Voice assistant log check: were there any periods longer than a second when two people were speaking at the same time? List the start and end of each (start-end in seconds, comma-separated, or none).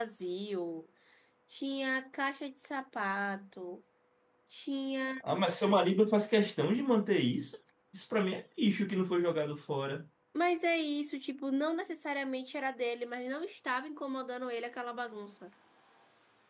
none